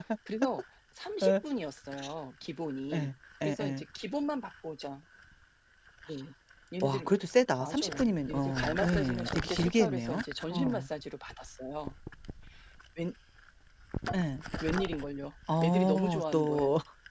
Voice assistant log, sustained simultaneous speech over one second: present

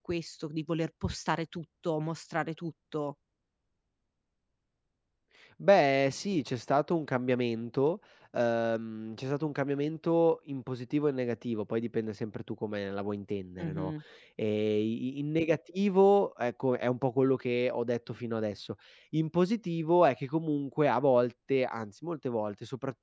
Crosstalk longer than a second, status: none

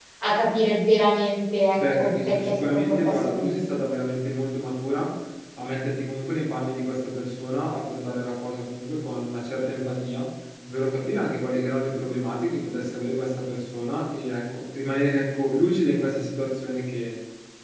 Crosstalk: present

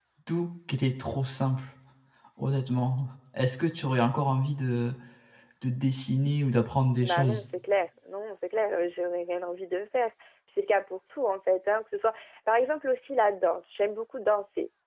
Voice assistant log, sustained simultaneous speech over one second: none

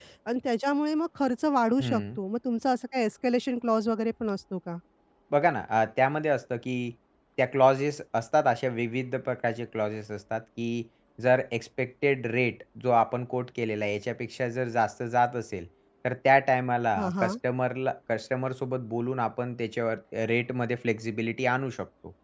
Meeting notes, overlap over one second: none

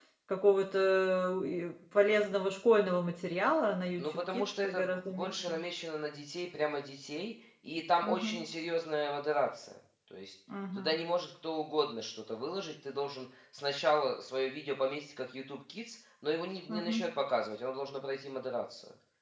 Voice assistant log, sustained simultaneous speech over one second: present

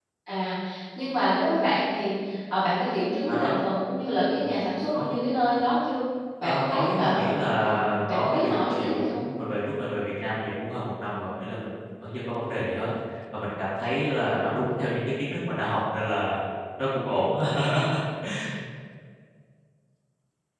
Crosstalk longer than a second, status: present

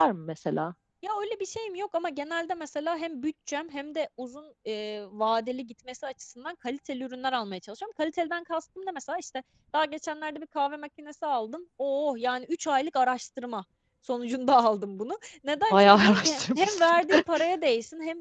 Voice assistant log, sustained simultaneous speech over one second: present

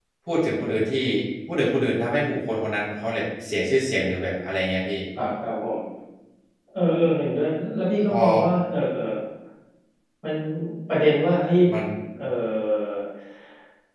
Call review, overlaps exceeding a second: none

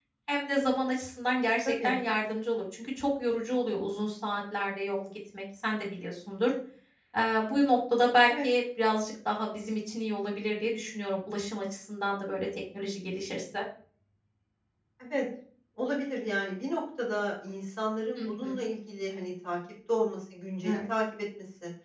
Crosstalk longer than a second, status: none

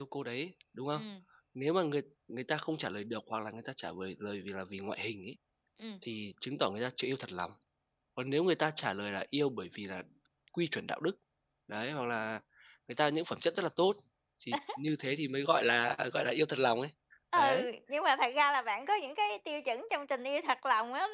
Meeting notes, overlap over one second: none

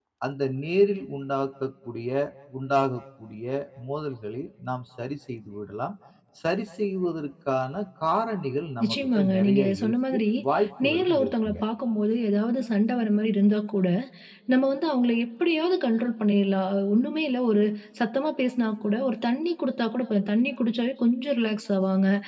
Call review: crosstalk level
present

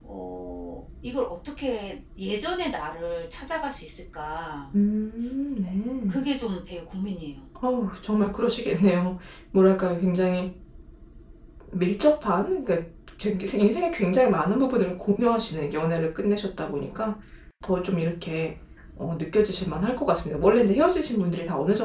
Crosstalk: none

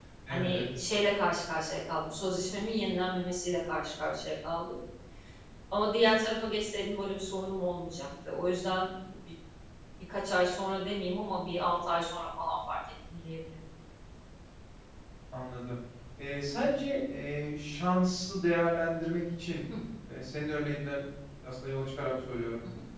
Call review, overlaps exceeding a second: none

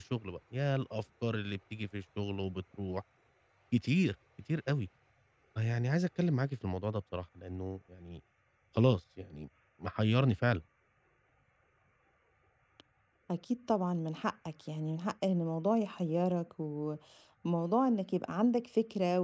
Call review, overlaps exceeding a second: none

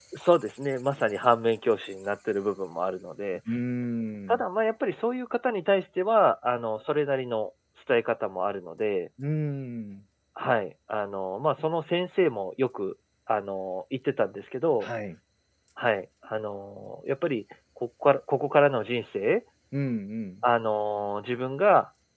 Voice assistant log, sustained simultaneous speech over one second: none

